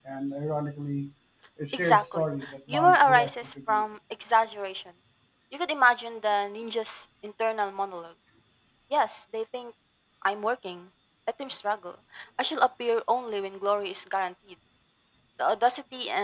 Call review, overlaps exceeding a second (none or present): present